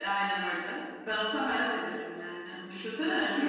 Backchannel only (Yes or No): No